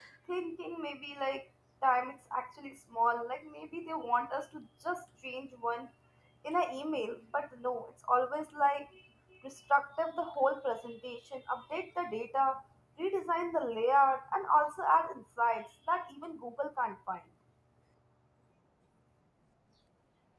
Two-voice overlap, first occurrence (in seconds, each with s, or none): none